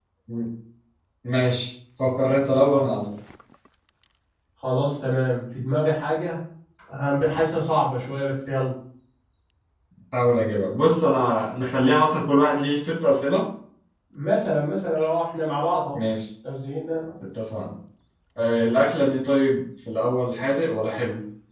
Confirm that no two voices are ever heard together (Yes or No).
Yes